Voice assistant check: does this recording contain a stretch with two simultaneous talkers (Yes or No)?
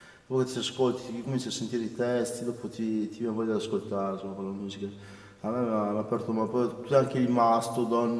No